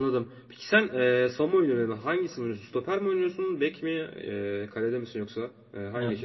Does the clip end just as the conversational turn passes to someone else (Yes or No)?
Yes